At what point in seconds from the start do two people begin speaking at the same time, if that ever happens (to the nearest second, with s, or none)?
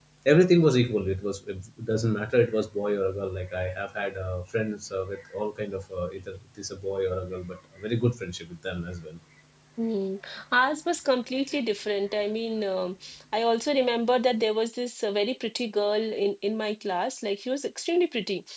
none